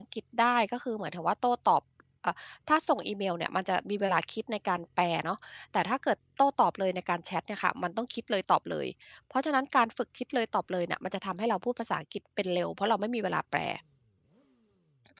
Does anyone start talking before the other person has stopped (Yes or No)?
No